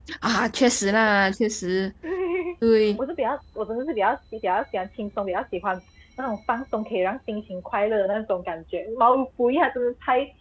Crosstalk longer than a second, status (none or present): none